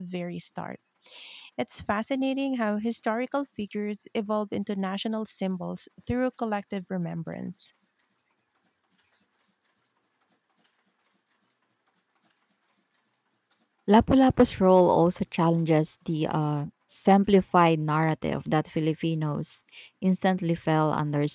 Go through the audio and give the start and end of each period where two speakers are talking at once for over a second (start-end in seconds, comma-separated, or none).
none